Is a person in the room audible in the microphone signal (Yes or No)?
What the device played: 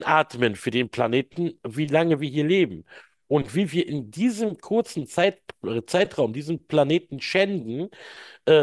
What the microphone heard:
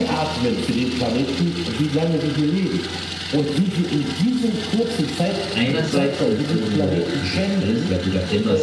Yes